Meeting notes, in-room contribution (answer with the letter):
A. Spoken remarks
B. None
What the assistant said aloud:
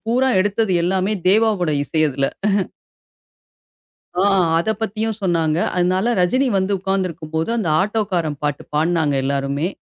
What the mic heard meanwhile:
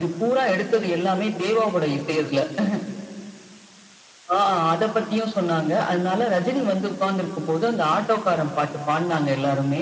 B